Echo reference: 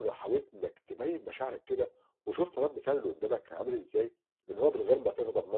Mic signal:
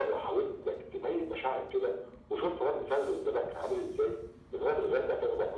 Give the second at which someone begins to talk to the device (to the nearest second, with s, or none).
none